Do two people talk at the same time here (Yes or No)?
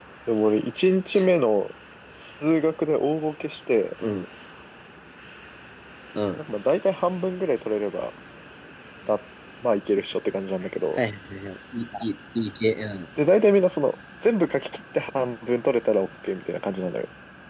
No